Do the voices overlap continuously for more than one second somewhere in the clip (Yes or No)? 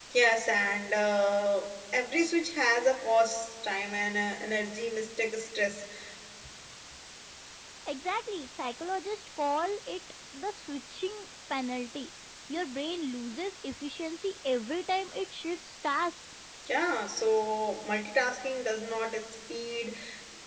No